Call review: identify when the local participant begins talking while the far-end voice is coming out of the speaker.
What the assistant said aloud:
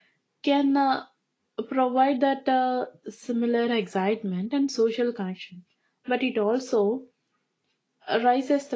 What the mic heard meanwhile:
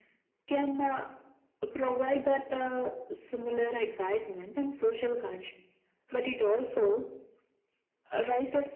none

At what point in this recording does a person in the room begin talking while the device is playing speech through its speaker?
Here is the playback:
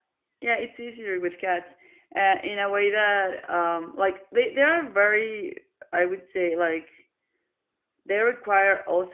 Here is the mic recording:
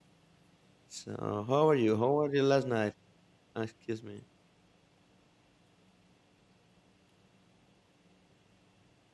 1 s

